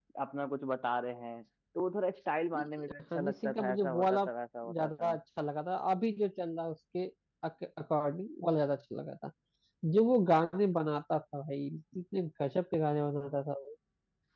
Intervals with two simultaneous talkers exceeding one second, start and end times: 2.6-4.2

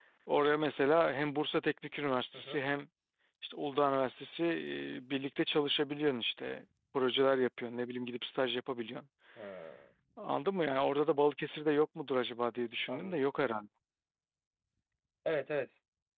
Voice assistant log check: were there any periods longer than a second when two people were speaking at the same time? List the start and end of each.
none

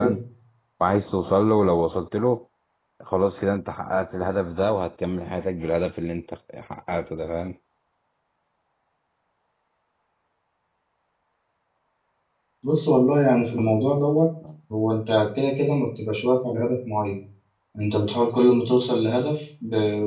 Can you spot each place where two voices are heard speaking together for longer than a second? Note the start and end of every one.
none

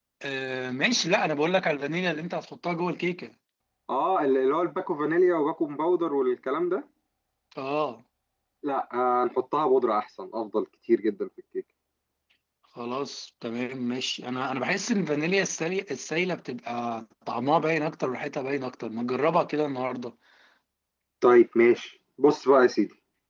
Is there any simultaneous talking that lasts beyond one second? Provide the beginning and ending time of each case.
none

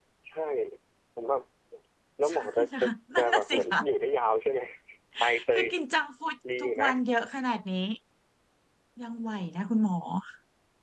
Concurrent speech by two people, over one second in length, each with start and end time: 2.3-3.7

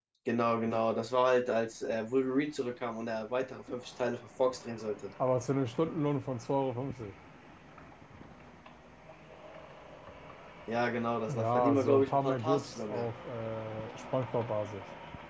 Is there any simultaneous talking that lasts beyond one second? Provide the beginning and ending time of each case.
11.3-13.1

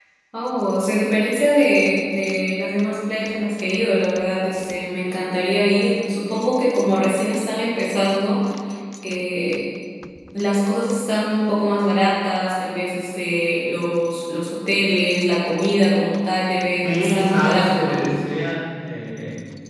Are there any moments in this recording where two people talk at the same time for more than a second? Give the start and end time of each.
16.8-18.1

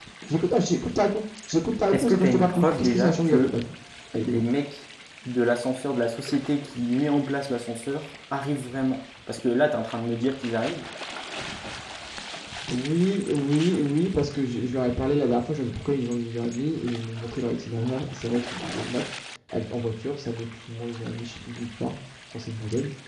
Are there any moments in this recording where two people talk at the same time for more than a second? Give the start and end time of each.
1.9-3.6

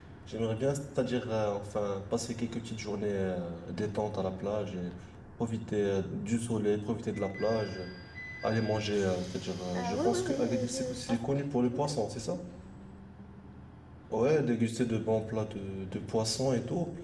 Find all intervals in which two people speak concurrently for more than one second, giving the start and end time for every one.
9.8-11.2

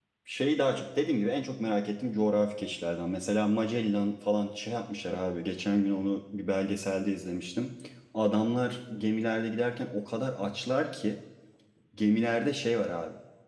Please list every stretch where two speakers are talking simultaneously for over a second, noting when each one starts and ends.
none

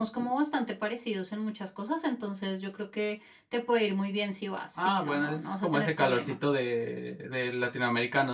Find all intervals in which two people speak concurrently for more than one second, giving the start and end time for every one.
4.8-6.4

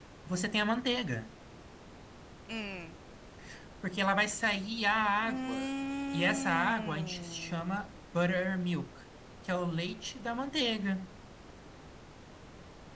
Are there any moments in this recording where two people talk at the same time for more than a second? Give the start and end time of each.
6.1-7.8

